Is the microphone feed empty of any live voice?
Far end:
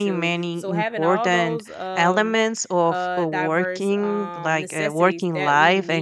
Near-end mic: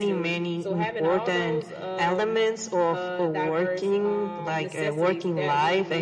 Yes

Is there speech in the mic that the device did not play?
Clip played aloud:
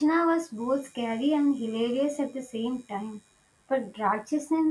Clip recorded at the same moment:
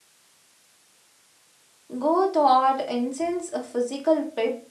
Yes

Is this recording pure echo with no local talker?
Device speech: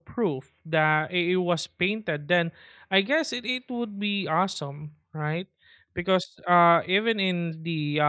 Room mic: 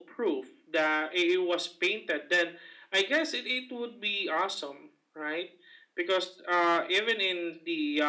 Yes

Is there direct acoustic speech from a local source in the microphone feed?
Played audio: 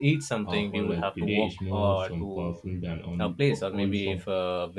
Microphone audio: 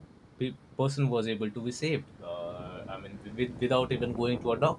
Yes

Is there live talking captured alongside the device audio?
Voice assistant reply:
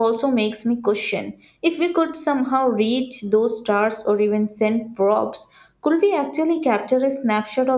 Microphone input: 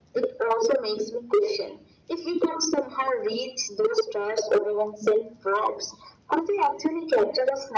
No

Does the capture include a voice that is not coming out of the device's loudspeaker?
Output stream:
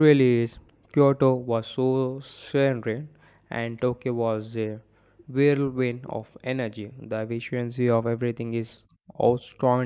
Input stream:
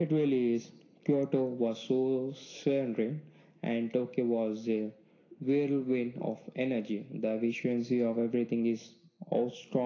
No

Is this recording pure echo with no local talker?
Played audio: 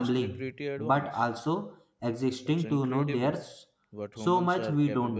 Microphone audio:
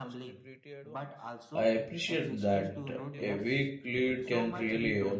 No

